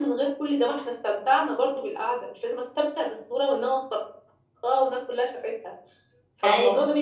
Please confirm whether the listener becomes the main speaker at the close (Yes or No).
No